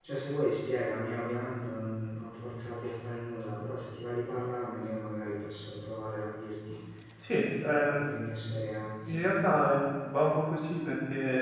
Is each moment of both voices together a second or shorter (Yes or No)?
Yes